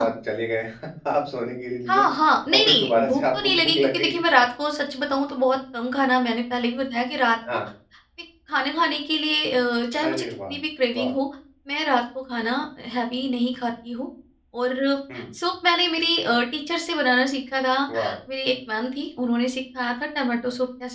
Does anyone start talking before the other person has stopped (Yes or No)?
Yes